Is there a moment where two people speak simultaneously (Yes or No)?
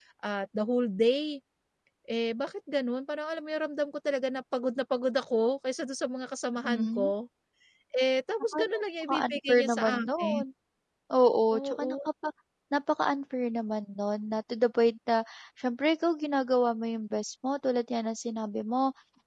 Yes